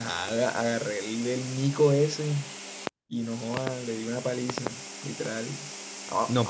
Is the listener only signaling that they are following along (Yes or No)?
No